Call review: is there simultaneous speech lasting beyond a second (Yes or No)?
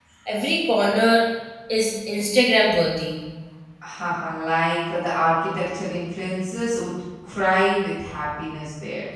No